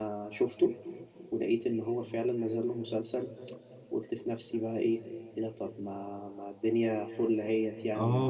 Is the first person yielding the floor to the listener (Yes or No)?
Yes